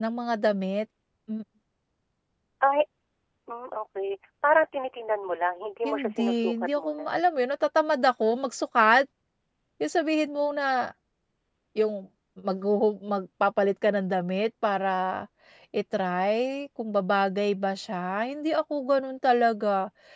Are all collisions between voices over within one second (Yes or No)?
No